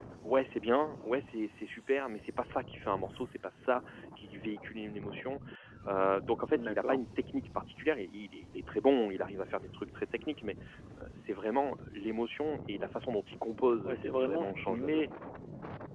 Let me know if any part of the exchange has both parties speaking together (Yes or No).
Yes